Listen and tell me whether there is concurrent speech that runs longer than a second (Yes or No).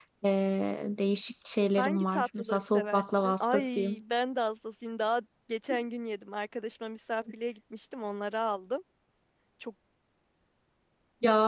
Yes